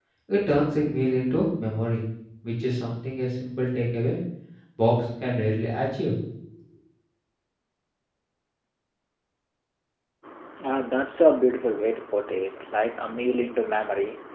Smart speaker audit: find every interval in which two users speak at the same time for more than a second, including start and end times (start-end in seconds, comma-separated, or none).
none